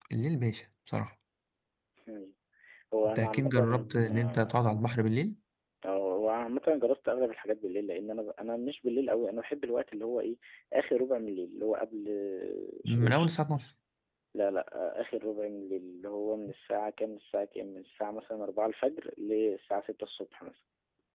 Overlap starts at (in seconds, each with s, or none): 3.0 s